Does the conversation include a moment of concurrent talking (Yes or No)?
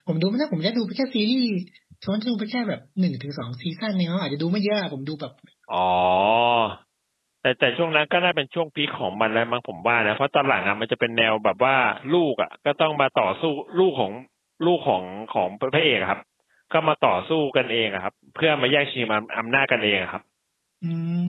No